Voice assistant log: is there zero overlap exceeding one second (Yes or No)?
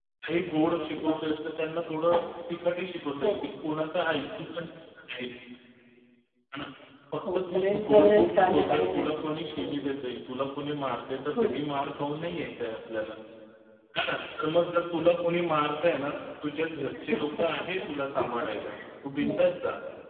No